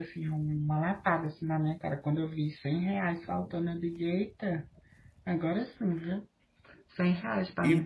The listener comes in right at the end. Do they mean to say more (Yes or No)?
Yes